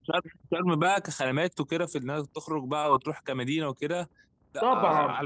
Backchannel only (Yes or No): No